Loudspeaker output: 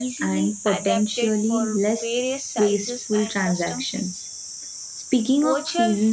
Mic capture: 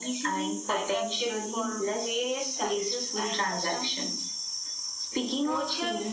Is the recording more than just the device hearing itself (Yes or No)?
No